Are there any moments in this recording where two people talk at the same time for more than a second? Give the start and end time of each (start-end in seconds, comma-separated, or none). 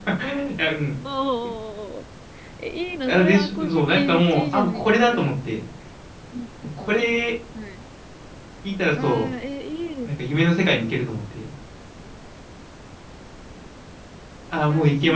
3.1-5.3